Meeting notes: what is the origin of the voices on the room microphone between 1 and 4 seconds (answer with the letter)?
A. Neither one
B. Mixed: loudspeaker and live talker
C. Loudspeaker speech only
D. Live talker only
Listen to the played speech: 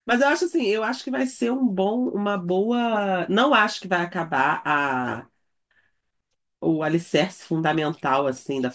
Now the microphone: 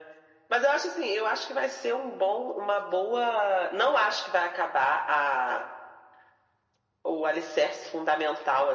C